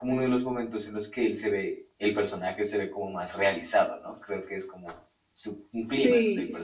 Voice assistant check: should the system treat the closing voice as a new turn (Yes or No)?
Yes